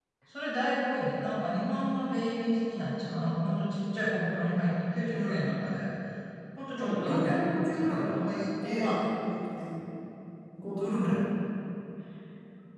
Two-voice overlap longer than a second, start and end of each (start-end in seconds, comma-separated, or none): 6.8-8.2